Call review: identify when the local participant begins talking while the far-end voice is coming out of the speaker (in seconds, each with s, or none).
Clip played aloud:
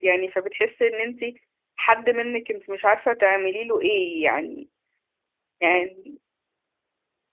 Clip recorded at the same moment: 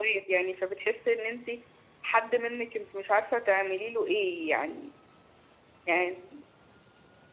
none